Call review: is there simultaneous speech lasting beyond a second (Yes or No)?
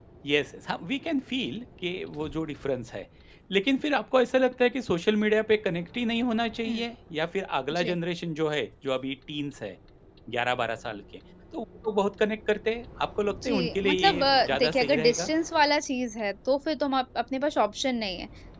Yes